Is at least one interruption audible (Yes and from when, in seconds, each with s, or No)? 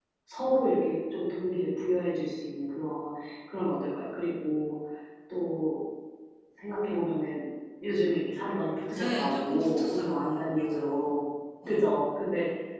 Yes, from 9.0 s